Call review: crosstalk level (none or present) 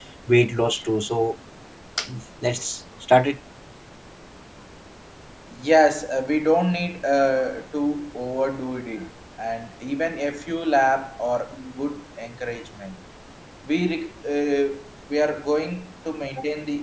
none